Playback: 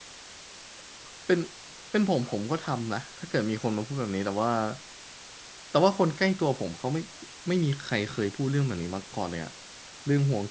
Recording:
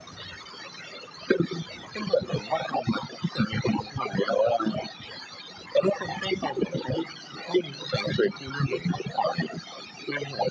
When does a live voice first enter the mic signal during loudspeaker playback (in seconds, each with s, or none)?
none